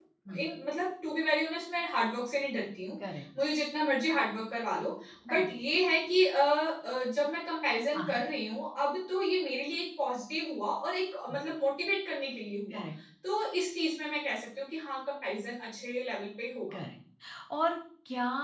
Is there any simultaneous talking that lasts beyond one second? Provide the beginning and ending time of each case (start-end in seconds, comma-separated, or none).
none